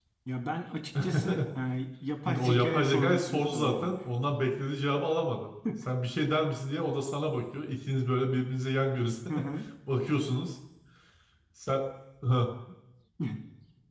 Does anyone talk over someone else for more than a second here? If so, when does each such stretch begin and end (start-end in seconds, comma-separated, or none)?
2.2-3.9